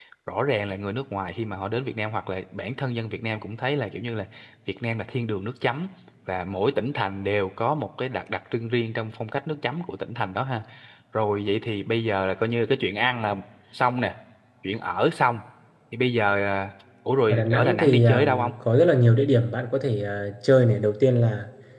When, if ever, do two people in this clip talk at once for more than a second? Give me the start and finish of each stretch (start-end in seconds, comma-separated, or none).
17.3-18.5